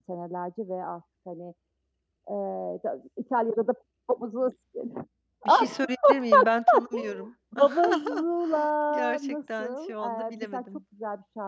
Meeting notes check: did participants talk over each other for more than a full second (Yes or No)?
Yes